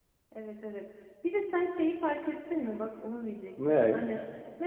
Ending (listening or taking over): listening